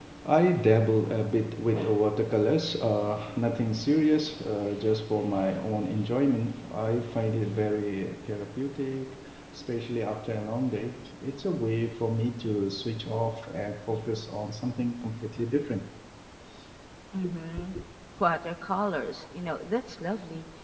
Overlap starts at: none

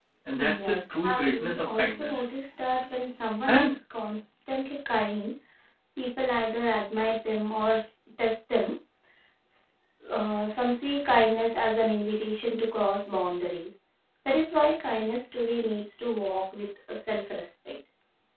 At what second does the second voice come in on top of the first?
0.5 s

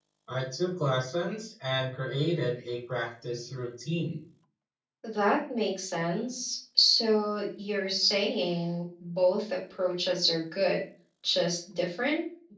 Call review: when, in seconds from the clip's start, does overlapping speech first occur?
none

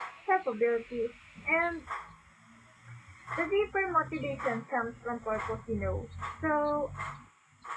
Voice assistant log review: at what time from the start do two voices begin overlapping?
none

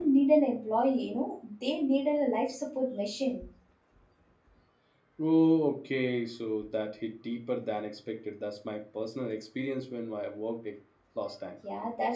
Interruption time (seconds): none

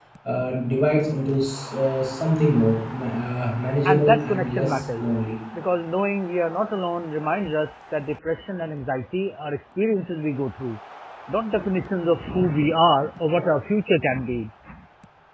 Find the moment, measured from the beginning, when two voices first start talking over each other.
3.8 s

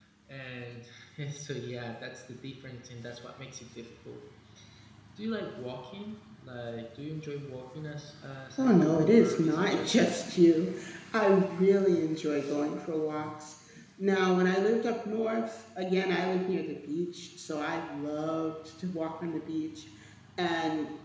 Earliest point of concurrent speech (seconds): 8.6 s

